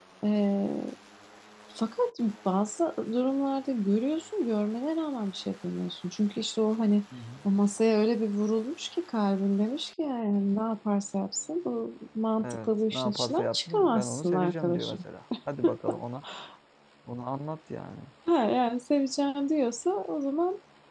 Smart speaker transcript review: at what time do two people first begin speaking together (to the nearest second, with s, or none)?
12 s